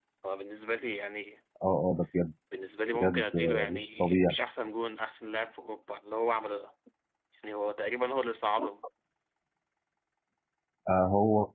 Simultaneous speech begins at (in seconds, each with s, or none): 3.0 s